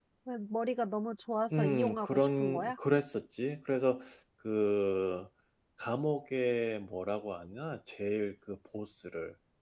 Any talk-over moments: Yes, from 1.5 s

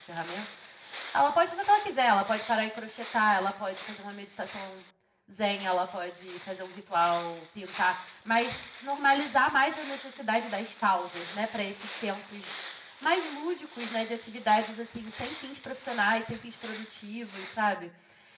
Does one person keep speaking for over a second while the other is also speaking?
No

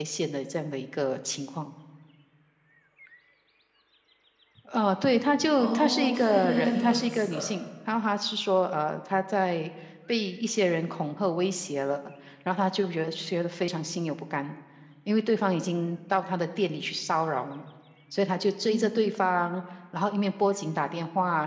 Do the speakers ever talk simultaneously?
Yes, from 5.6 s

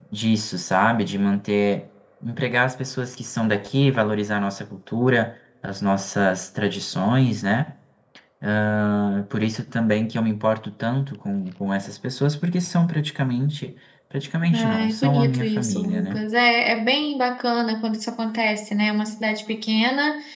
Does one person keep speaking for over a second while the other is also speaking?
Yes, from 14.4 s

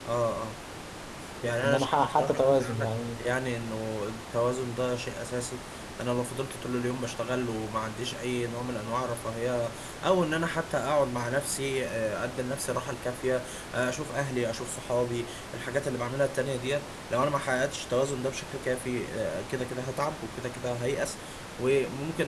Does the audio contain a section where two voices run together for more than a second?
Yes, from 1.6 s

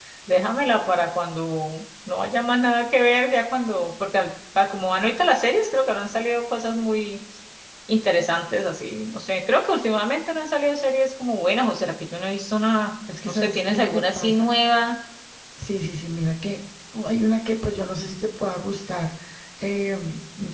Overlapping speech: Yes, from 13.1 s

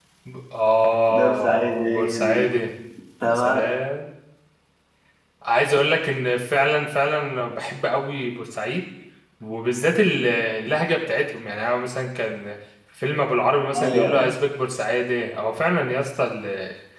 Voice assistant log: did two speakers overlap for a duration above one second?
Yes, from 1.1 s

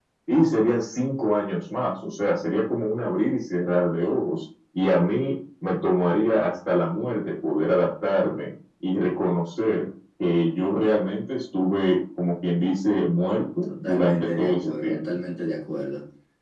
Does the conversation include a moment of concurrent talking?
Yes, from 13.7 s

